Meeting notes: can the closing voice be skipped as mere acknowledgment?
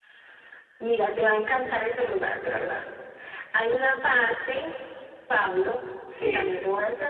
Yes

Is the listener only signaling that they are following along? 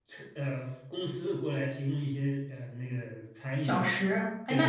No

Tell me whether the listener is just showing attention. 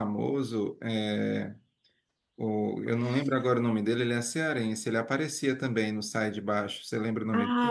No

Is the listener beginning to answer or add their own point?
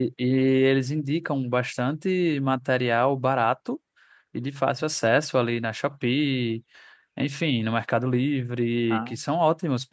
No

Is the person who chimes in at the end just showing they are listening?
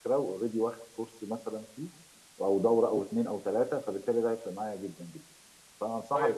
No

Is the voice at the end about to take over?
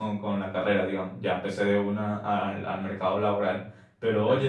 No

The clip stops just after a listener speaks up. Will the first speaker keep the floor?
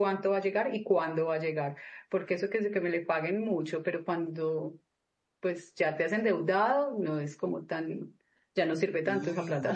No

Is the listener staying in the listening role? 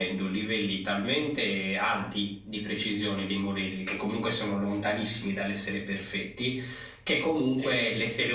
Yes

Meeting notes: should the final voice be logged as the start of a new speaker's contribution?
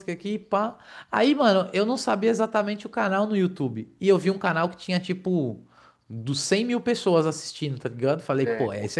No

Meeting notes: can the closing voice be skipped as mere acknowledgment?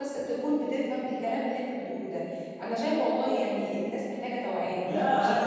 No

